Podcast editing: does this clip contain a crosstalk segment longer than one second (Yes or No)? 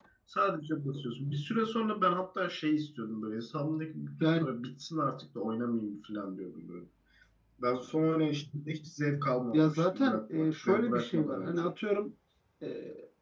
Yes